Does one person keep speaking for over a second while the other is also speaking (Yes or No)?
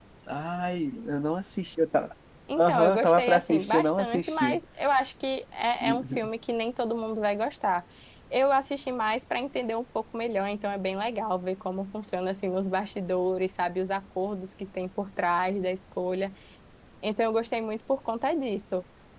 Yes